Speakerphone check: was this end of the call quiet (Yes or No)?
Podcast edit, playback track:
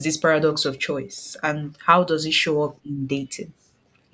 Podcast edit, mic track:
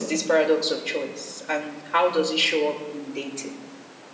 Yes